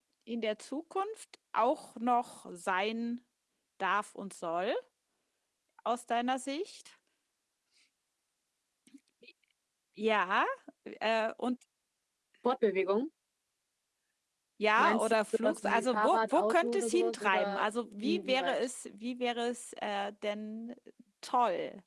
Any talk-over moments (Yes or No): Yes